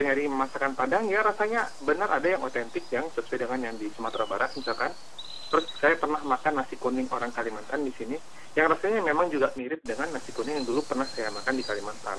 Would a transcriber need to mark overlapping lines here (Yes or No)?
No